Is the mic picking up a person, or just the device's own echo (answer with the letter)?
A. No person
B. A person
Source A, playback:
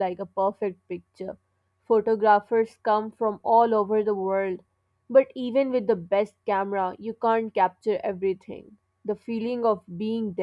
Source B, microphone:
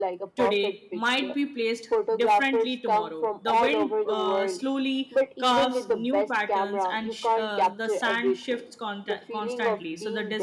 B